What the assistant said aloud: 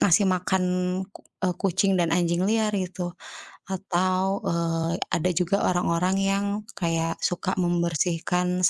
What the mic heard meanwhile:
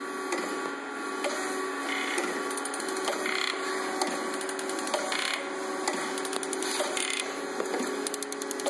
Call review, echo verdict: none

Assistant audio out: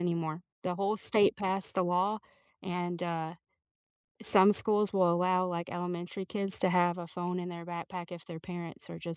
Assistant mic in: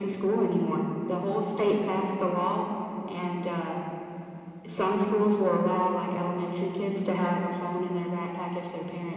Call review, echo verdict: present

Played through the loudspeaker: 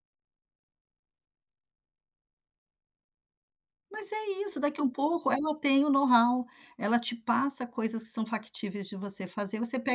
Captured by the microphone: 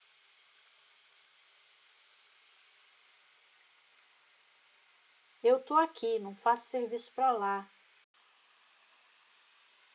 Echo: none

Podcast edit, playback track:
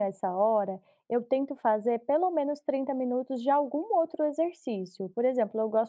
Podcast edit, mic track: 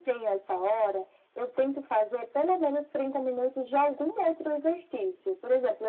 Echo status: present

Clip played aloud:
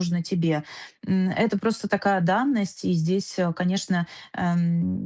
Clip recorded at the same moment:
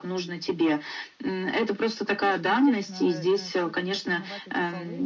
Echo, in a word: present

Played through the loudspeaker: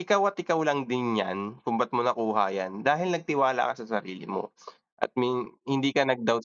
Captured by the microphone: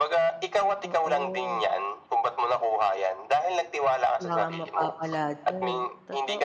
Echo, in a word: present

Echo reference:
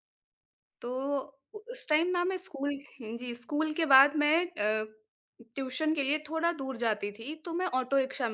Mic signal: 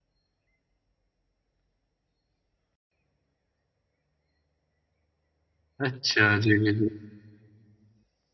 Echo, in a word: none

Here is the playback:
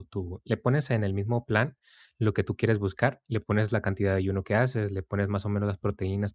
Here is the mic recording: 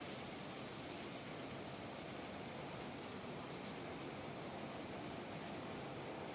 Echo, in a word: none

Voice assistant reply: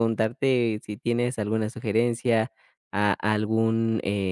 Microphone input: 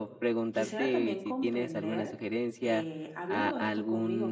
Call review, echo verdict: present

